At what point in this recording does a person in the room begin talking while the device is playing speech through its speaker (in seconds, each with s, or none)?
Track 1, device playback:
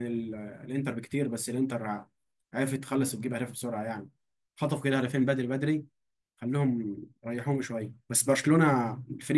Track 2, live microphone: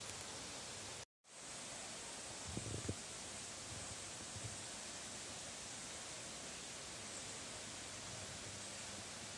none